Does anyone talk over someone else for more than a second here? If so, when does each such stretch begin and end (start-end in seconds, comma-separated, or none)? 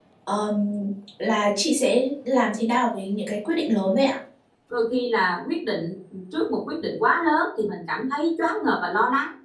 none